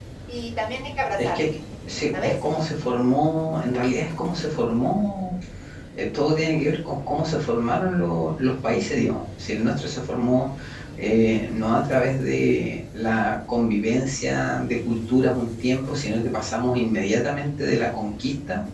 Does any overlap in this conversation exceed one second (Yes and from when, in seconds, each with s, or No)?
No